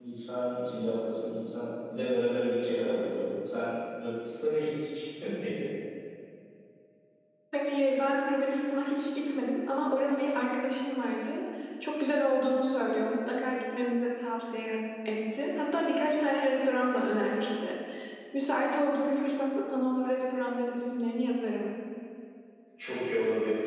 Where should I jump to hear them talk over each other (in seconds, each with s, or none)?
none